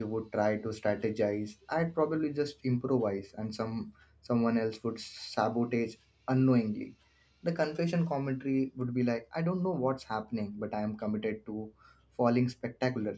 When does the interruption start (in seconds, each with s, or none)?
none